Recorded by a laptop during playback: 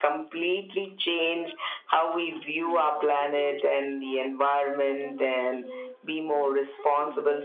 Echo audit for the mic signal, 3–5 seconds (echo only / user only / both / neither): both